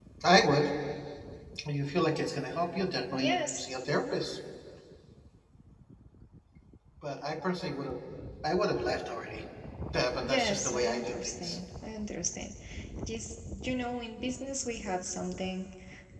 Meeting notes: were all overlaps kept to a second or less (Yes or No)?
No